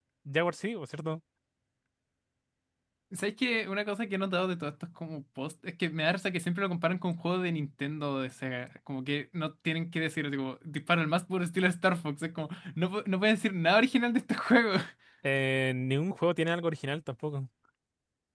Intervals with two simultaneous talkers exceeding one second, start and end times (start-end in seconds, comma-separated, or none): none